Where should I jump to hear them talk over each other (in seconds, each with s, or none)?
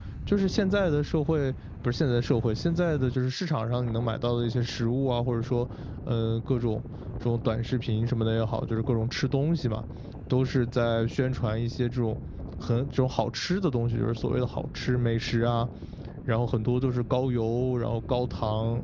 none